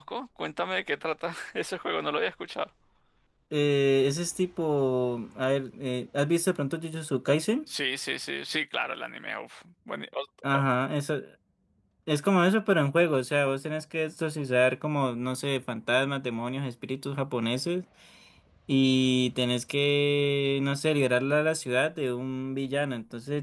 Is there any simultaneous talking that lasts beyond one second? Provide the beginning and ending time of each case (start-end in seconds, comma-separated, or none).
none